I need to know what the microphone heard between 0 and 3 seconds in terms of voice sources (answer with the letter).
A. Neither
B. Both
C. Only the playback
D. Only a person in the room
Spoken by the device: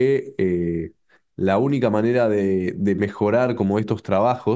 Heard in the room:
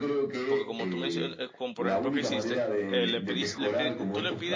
B